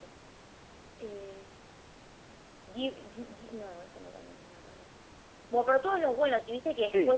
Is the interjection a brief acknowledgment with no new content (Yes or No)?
Yes